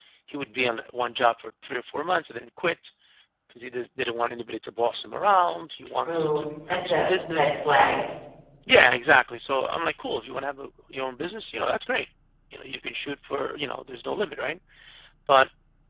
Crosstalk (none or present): present